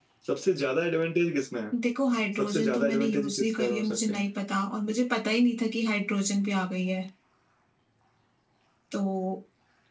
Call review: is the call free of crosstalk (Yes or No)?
No